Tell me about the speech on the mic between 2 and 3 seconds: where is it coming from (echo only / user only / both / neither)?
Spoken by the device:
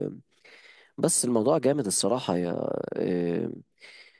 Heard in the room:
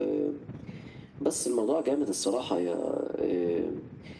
echo only